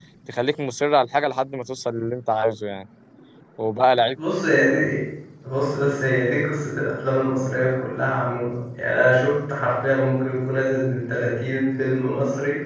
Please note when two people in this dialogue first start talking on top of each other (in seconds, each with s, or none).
none